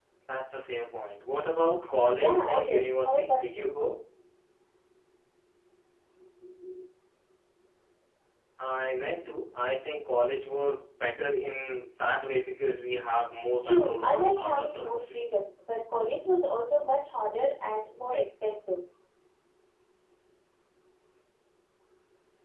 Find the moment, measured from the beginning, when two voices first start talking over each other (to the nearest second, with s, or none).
2 s